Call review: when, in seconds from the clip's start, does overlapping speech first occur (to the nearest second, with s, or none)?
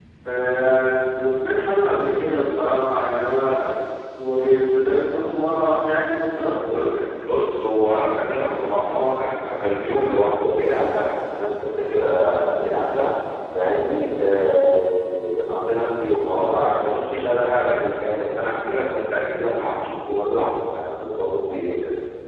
none